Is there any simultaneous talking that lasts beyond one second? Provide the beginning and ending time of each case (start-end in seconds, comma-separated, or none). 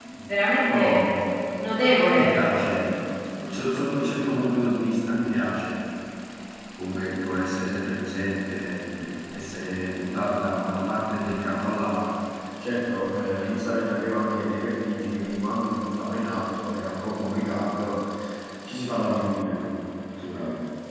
none